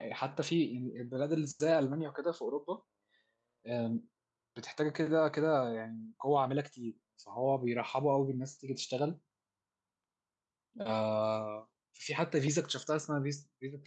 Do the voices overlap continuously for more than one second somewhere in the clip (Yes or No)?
No